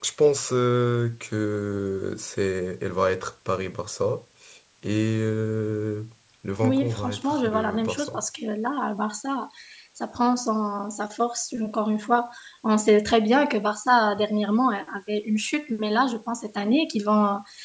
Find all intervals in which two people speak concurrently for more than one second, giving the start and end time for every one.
6.6-8.1

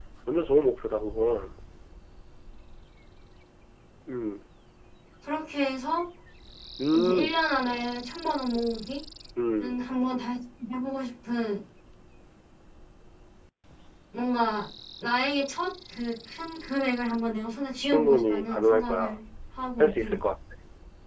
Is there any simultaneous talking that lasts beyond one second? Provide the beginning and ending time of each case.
17.8-19.2

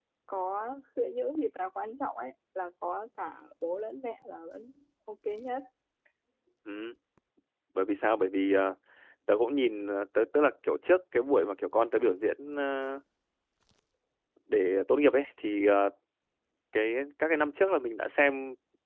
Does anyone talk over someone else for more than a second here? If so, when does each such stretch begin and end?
none

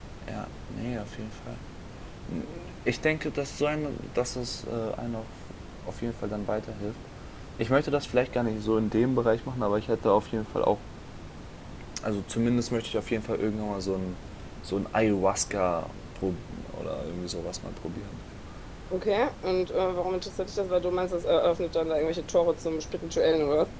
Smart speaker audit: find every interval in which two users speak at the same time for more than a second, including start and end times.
none

